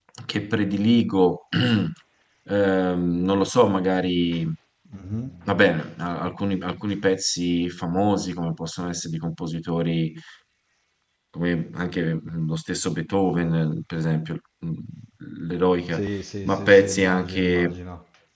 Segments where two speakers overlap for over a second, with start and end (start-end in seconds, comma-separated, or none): 16.4-17.8